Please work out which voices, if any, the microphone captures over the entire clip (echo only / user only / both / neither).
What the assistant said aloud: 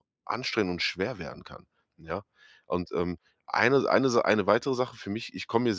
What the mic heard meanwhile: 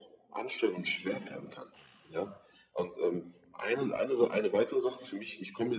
echo only